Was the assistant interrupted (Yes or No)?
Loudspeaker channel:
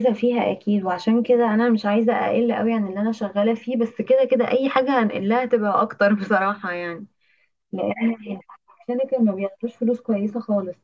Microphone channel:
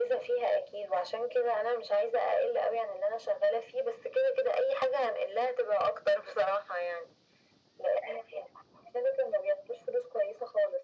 No